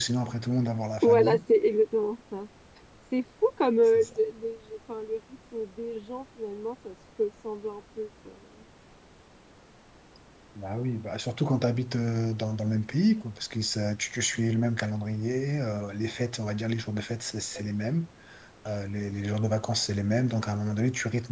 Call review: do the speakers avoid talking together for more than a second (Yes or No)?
Yes